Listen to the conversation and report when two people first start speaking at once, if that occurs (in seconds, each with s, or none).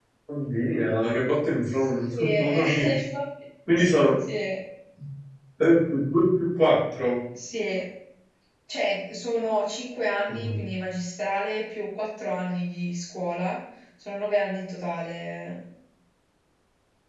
1.6 s